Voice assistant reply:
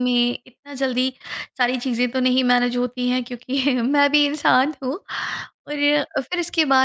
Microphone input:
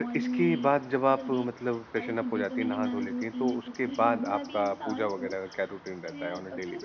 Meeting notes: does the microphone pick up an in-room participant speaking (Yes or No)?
Yes